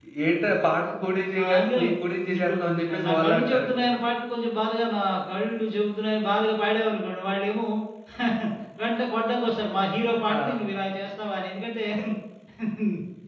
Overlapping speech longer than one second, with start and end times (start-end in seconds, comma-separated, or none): 2.2-3.7